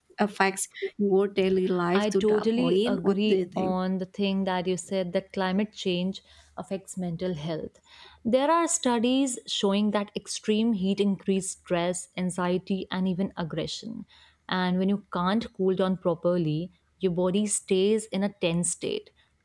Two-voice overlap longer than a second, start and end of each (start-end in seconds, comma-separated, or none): 1.9-3.8